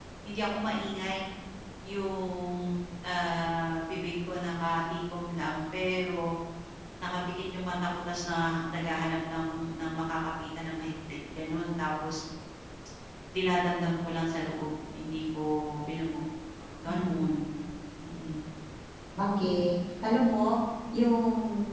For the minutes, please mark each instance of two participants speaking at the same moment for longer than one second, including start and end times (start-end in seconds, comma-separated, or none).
none